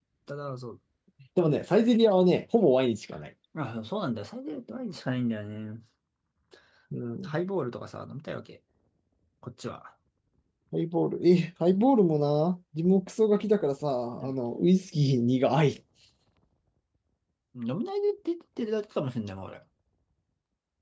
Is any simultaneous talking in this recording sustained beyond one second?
No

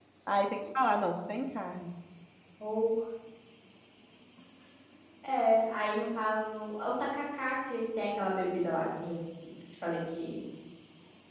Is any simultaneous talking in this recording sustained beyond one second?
No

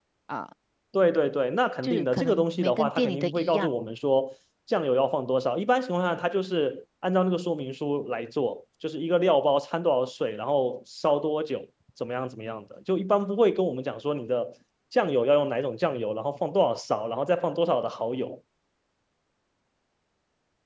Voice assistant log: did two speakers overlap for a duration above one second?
Yes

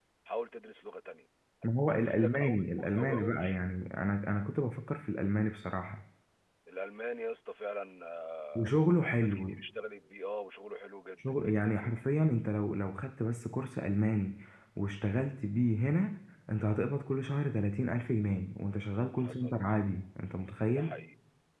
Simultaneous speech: Yes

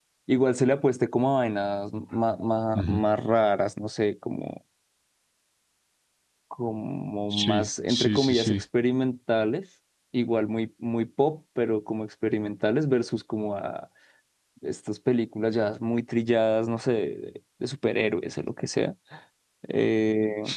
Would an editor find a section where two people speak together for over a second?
Yes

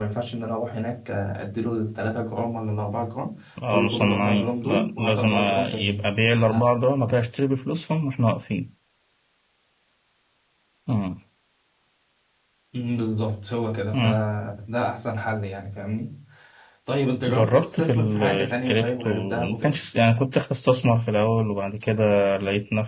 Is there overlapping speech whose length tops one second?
Yes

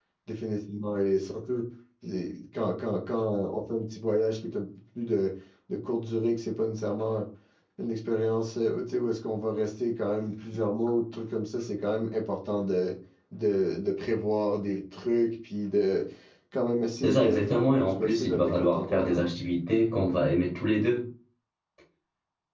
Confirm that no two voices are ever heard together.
No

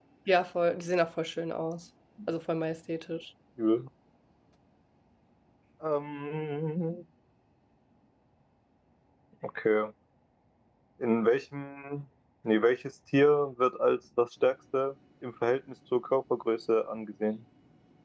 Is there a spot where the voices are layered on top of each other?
No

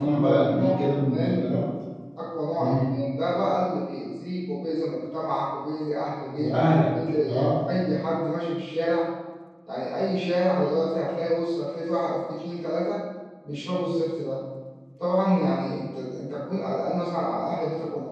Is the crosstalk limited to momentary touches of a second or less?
No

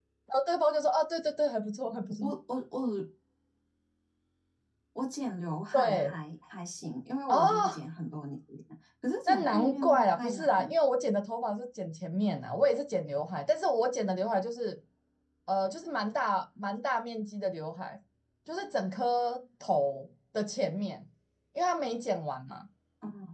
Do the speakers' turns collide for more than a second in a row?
Yes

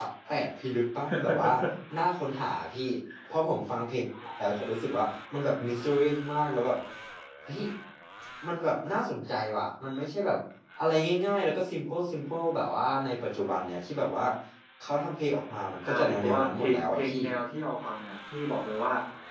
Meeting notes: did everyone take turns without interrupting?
No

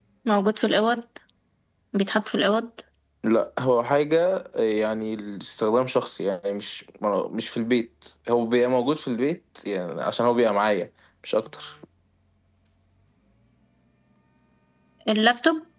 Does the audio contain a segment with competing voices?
No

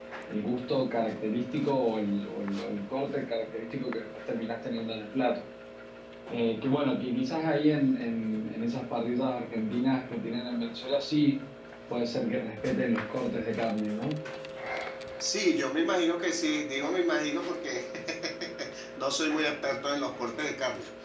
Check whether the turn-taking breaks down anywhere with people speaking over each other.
No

